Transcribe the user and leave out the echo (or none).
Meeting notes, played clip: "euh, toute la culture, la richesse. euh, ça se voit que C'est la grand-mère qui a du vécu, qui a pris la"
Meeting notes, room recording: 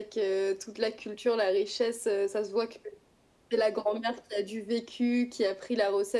none